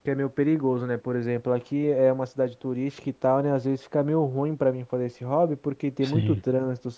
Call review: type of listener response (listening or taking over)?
listening